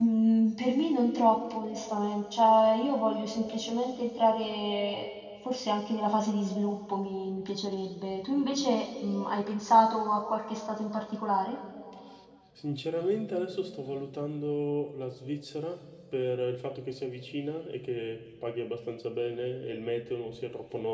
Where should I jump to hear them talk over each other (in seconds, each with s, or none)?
none